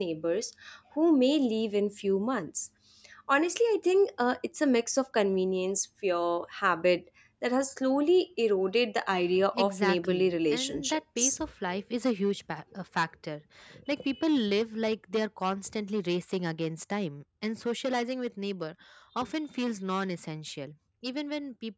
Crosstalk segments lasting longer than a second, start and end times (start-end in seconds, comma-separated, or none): 9.5-11.4